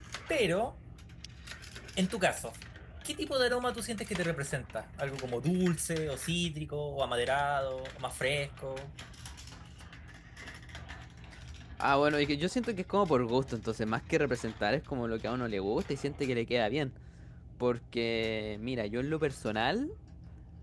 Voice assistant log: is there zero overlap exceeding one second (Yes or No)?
Yes